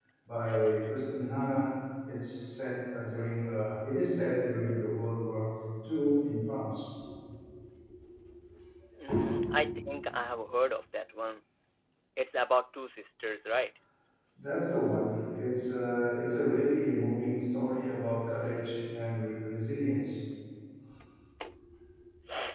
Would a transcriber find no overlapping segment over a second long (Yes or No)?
Yes